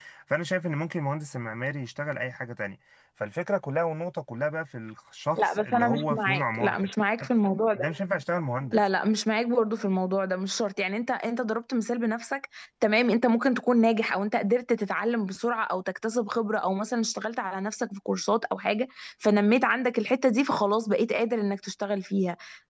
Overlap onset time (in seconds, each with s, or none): 5.4 s